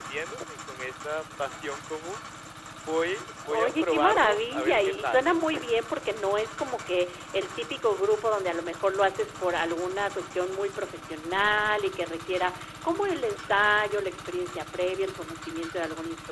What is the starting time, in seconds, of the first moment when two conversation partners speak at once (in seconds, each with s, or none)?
3.5 s